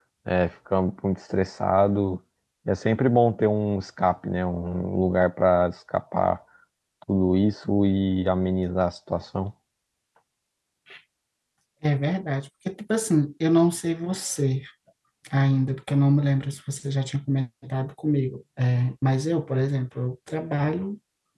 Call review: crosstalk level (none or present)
none